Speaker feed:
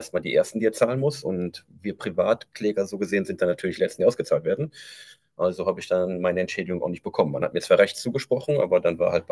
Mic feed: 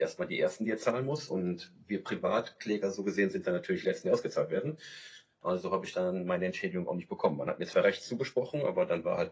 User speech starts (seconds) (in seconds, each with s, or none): none